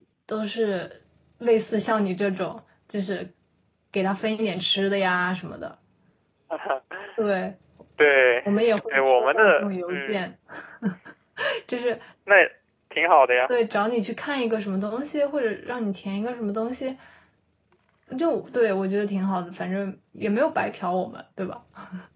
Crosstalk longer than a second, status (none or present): present